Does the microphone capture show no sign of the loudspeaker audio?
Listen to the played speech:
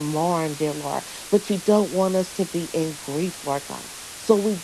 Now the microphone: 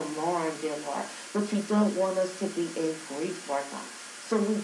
No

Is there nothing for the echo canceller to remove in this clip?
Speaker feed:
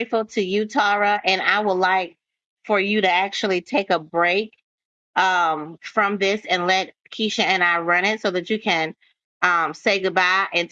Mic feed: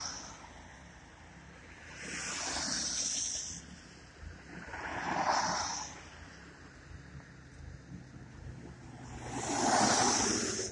Yes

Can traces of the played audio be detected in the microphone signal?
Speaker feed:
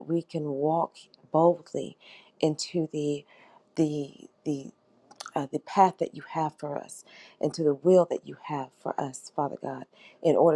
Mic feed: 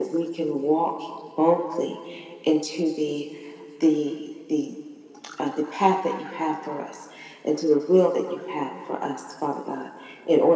Yes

